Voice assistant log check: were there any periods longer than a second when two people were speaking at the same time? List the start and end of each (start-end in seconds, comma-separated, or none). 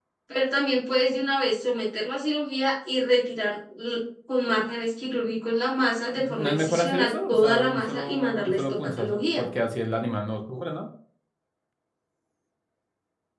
6.2-9.5